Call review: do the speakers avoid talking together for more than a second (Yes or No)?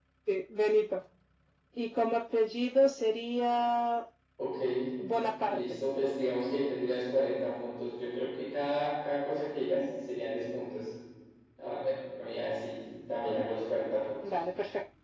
Yes